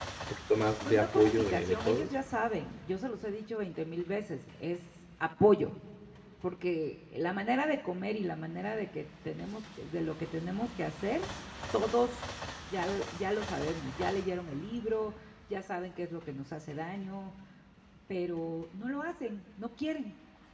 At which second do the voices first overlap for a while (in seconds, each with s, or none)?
0.8 s